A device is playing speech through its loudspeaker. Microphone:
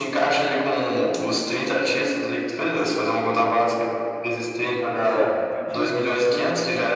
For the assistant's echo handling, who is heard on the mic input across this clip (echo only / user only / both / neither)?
both